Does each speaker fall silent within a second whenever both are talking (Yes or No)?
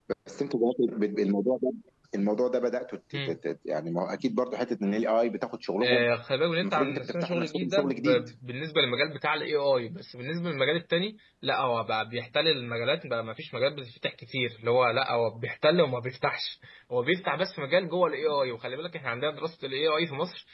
No